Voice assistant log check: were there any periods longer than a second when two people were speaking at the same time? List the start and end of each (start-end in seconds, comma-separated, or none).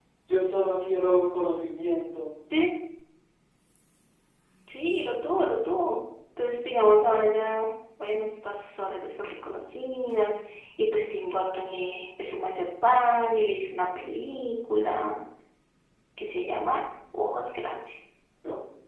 none